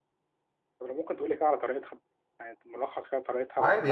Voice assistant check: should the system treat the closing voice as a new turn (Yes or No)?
Yes